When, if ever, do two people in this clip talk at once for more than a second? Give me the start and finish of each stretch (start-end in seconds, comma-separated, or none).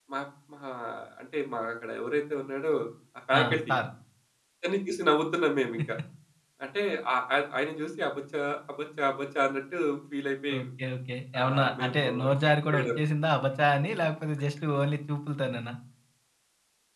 11.4-12.9